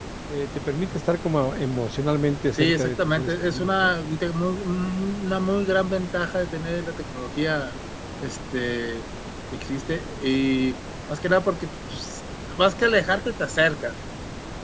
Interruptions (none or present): present